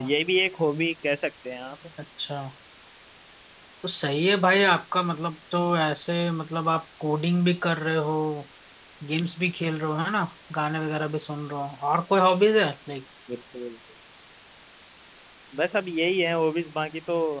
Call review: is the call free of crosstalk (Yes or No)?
Yes